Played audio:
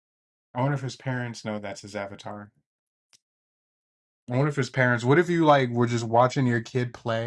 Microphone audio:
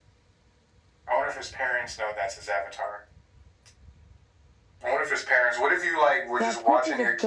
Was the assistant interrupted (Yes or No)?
Yes